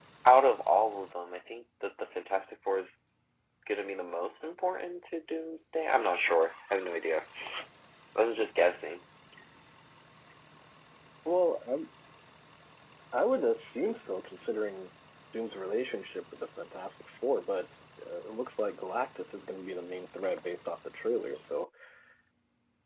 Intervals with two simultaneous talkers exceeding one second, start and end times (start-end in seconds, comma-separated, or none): none